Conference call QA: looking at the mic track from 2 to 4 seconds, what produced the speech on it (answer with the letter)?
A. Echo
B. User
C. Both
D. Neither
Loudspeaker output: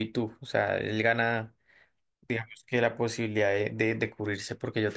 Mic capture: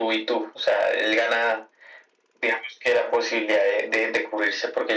A